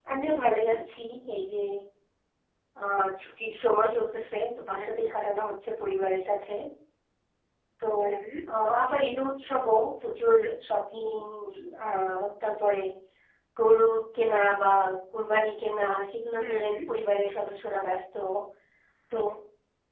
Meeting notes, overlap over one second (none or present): none